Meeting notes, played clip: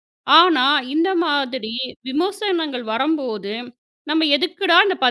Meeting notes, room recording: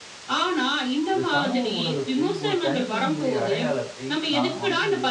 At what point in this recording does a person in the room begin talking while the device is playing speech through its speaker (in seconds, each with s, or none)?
1.1 s